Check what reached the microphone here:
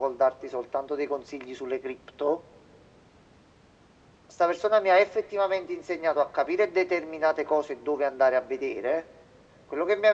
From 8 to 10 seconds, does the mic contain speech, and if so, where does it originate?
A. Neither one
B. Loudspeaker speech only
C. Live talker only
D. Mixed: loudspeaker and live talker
B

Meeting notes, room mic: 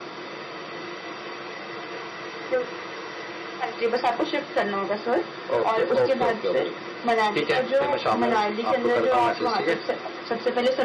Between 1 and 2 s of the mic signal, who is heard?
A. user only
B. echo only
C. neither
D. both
C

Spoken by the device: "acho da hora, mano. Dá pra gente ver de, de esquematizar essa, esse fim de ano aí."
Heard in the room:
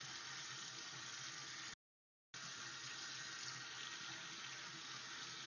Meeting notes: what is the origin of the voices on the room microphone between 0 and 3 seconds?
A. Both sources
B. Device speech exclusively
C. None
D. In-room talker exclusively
C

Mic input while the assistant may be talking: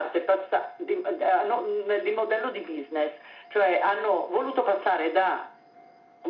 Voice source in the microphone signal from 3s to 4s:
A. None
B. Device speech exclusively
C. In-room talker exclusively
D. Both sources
B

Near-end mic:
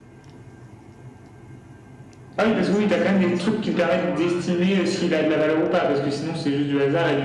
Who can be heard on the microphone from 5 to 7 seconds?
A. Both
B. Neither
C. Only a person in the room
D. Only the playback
A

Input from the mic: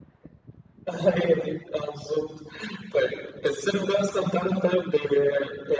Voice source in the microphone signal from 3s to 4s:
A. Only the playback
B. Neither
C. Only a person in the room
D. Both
A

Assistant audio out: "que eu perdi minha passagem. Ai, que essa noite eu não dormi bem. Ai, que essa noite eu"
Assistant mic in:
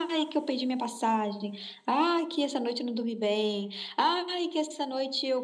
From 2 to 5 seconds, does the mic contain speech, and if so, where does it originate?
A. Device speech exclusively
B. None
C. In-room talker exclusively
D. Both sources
A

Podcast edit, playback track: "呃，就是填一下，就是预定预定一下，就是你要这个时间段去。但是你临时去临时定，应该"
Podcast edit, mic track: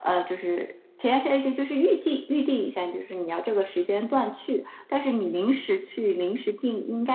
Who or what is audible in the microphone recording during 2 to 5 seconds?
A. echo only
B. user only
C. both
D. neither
A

